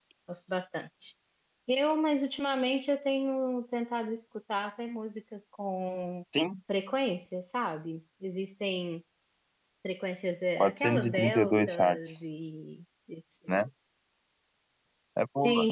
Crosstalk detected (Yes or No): Yes